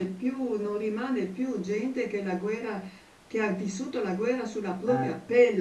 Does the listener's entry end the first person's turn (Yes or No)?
No